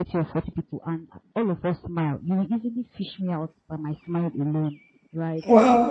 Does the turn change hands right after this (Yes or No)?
No